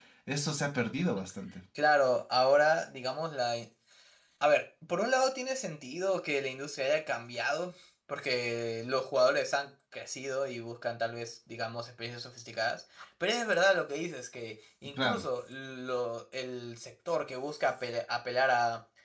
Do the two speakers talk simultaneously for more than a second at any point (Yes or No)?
No